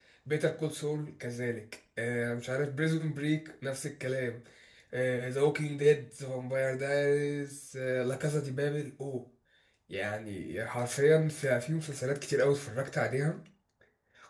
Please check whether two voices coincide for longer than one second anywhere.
No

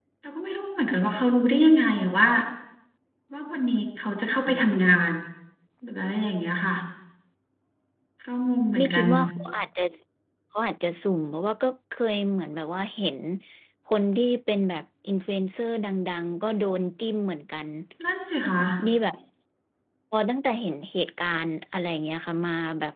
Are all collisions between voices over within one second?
Yes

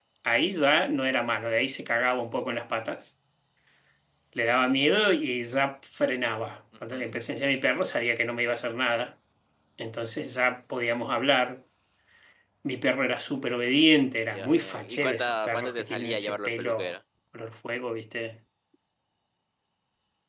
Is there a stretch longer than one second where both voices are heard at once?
Yes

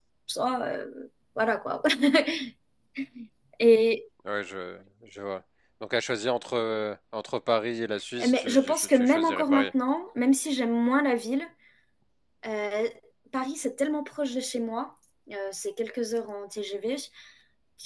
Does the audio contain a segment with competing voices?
Yes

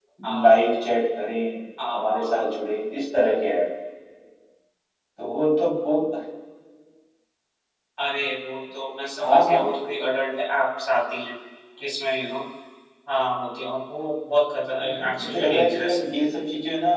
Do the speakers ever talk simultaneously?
Yes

